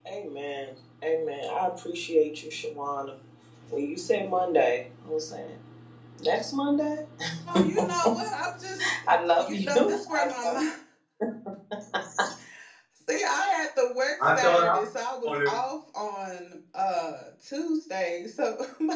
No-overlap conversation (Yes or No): No